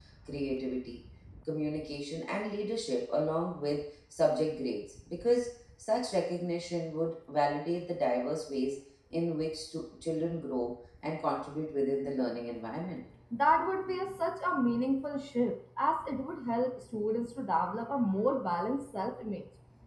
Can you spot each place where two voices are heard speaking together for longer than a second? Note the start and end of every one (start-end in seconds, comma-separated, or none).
none